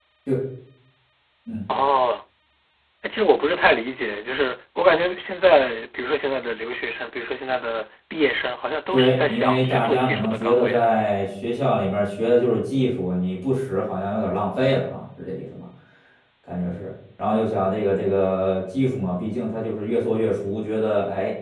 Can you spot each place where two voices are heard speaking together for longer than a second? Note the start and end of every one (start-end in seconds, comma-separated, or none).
8.9-10.8